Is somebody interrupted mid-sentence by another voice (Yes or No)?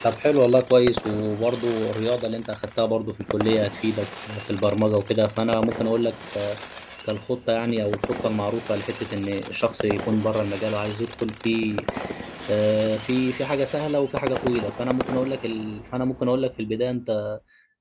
No